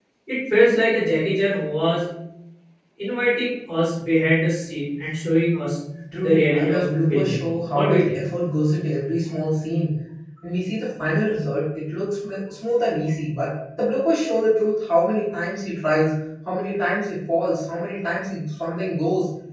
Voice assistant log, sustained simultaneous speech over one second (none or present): present